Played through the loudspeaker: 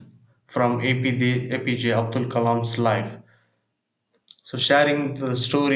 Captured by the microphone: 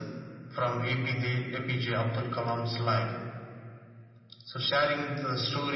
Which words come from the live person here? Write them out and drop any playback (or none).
none